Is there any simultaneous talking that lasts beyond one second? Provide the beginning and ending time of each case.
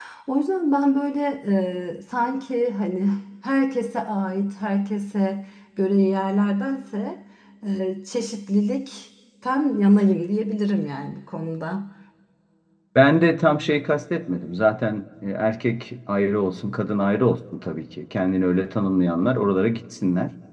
none

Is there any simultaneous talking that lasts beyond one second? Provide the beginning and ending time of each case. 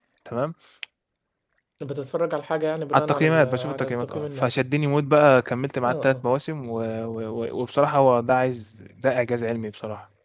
2.9-4.5

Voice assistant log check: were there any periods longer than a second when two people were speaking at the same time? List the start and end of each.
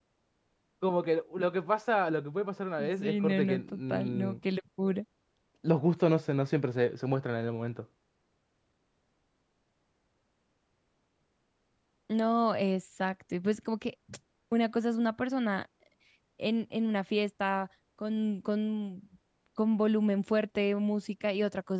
2.9-4.4

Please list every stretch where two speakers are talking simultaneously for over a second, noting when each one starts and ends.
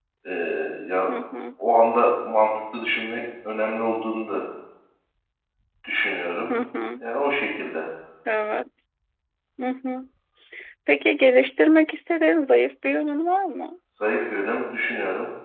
none

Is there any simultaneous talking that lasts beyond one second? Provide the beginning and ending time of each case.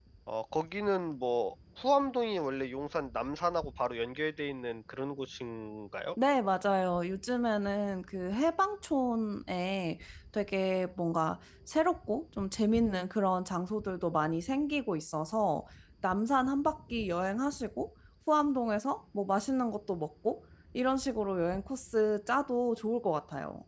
none

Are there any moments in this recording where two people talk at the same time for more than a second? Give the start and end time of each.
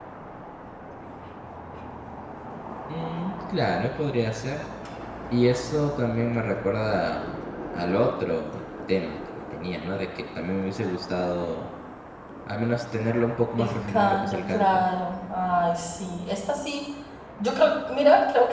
13.6-14.8

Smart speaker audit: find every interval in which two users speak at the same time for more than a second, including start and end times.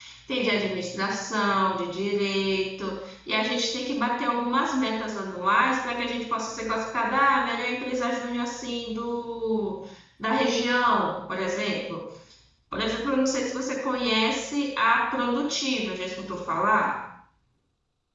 none

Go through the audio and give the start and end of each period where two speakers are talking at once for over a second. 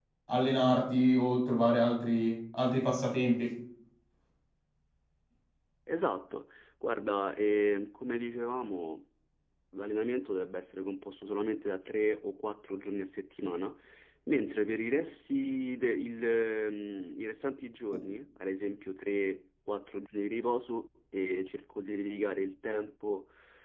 none

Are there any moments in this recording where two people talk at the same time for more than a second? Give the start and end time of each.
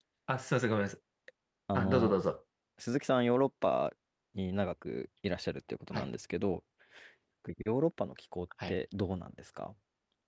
none

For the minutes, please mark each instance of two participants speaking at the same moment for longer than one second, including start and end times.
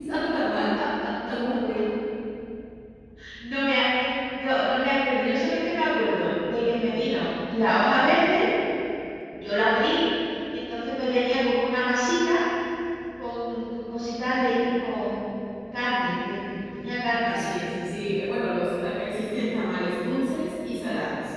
none

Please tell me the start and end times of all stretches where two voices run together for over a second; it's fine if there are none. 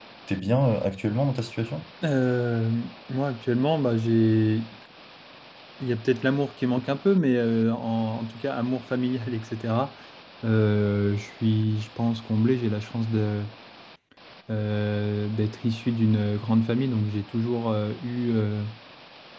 none

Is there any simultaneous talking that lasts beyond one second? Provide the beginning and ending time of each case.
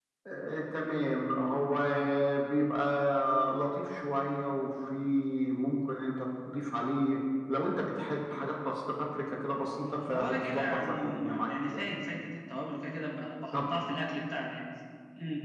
9.8-11.9

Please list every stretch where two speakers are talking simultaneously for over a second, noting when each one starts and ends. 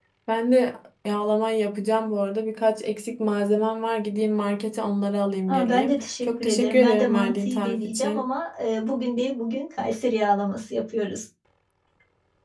5.5-8.3

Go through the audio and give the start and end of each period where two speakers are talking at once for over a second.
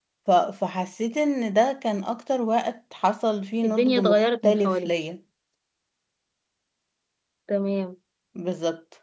3.6-4.9

